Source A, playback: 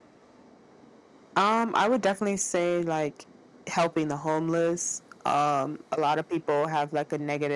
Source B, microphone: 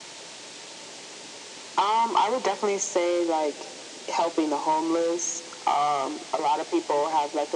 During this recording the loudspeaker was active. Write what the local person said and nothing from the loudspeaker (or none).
none